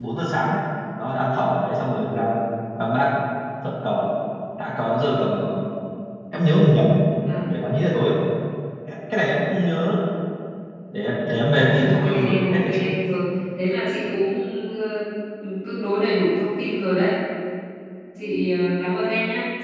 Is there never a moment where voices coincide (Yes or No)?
No